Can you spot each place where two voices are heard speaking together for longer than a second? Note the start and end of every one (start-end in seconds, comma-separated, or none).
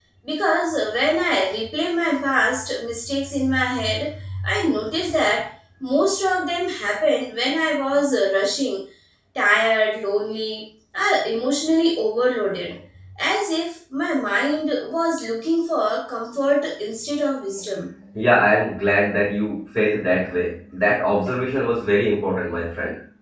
none